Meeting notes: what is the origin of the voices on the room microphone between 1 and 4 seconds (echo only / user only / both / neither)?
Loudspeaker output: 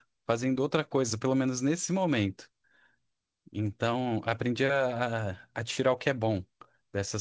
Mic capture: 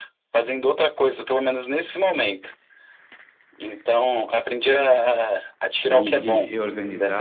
echo only